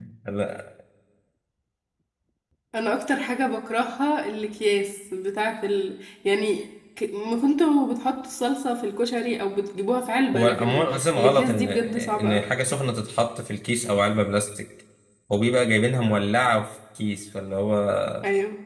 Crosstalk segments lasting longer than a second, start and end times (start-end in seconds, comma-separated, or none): 10.3-12.5